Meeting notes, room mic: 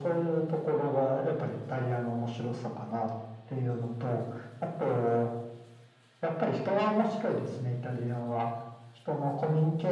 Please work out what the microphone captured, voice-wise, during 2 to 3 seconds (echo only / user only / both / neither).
echo only